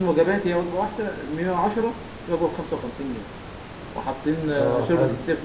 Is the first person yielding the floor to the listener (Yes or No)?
No